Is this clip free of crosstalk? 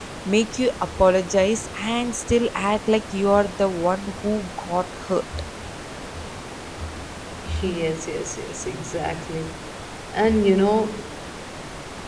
Yes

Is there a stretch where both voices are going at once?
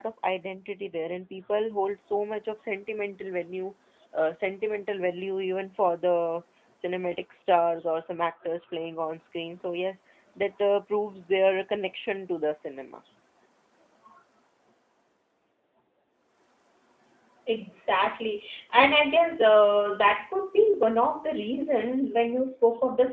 No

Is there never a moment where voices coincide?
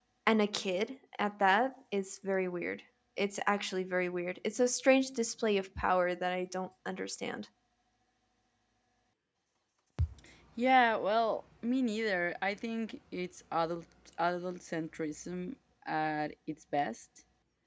Yes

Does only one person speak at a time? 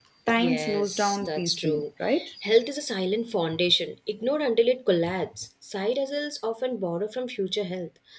No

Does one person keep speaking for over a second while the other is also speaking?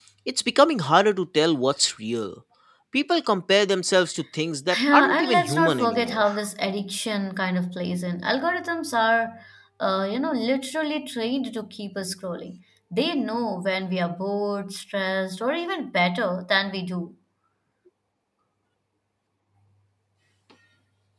Yes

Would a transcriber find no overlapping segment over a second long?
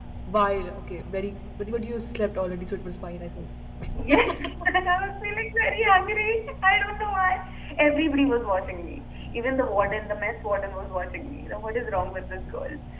Yes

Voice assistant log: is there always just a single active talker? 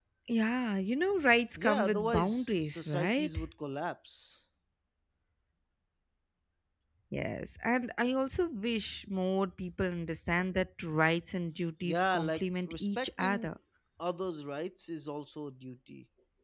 No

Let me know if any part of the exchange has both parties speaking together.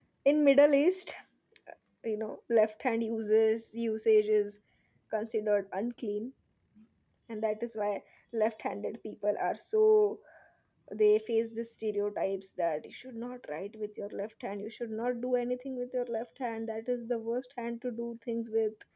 No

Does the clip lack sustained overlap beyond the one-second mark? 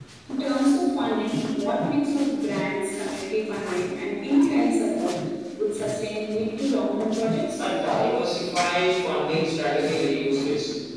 Yes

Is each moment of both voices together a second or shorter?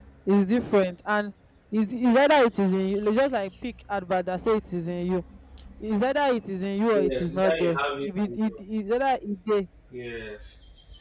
No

